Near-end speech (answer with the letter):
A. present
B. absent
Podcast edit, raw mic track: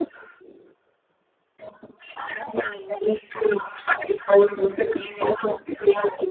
B